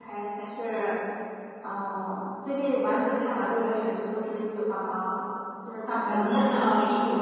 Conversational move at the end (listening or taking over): taking over